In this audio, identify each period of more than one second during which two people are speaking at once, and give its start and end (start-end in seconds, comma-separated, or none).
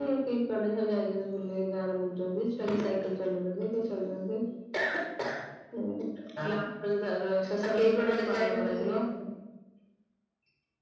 7.7-9.0